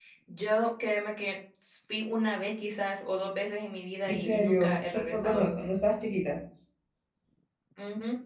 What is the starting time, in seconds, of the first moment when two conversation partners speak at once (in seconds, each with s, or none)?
4.1 s